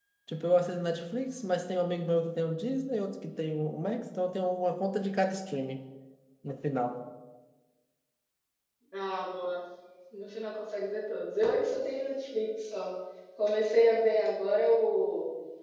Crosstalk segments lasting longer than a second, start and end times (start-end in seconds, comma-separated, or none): none